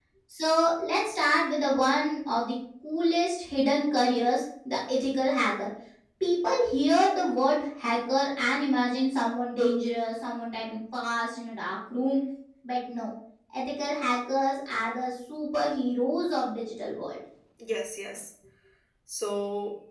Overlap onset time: none

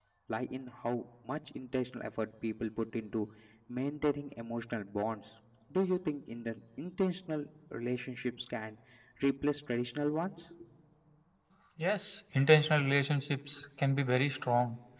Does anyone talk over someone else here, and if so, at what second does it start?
none

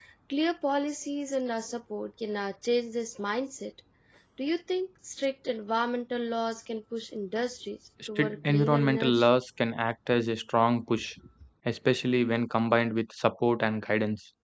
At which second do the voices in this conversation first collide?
8.2 s

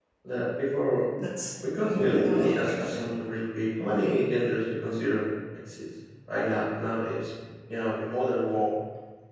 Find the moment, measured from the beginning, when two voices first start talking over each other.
1.8 s

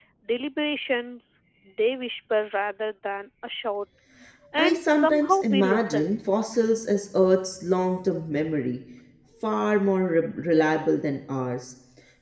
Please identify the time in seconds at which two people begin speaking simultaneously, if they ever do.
4.6 s

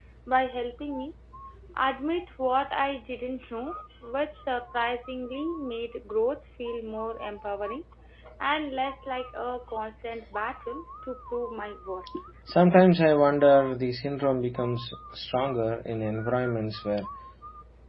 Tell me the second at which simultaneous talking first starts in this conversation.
none

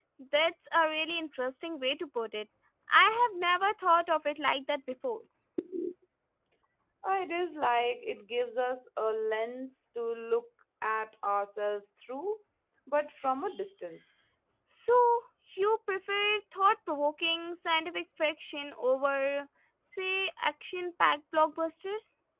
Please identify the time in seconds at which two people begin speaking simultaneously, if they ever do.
none

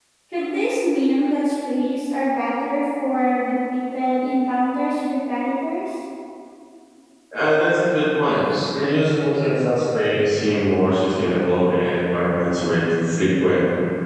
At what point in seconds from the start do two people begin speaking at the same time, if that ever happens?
none

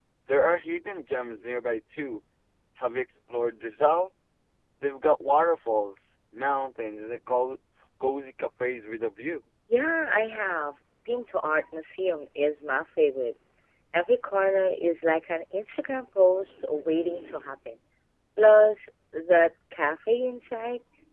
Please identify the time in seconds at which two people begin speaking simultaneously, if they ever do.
none

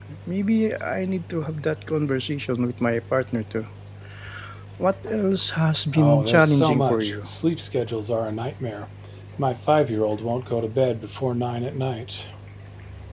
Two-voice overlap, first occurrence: 5.9 s

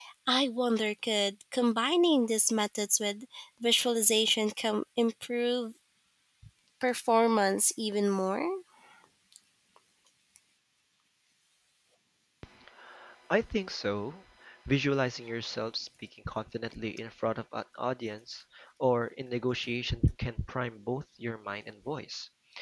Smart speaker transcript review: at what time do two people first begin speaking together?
none

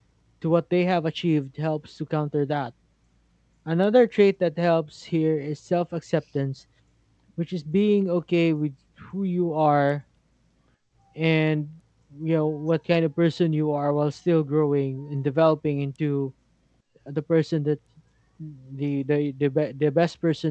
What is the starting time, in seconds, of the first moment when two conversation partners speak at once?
none

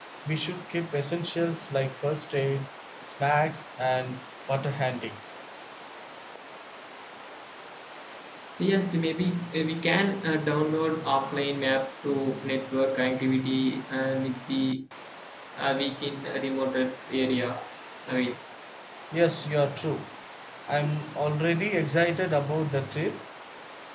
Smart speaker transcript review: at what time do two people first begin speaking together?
none

